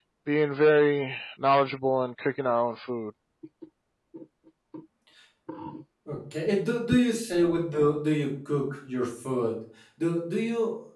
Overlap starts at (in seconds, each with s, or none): none